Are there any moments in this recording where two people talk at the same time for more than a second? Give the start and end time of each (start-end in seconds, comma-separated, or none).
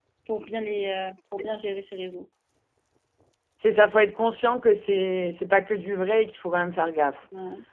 none